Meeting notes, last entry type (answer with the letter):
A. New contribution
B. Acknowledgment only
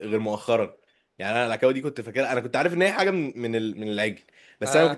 B